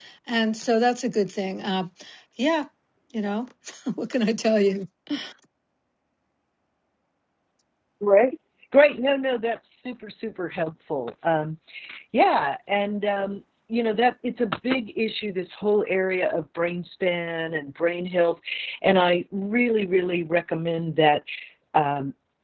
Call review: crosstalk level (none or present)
none